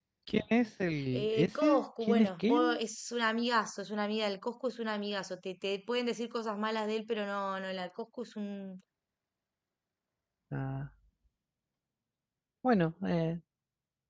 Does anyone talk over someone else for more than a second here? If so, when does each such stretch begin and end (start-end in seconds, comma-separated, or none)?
1.1-2.8